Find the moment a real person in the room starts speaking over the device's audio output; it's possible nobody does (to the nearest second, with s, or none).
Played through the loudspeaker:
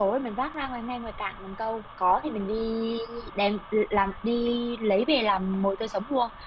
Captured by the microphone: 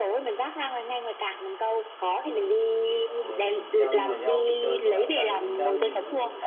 3 s